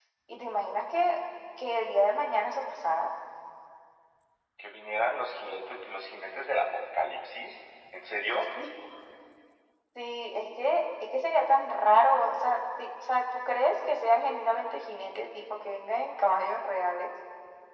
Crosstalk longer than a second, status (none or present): none